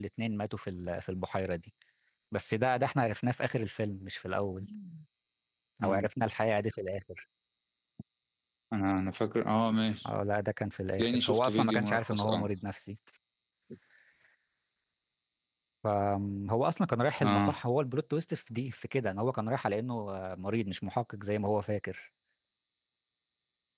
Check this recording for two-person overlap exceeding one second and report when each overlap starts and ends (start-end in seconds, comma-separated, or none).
11.0-12.5